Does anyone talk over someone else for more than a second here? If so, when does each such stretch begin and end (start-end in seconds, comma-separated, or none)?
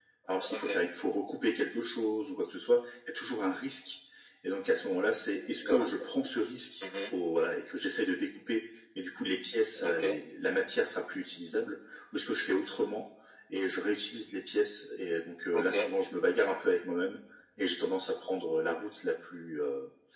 none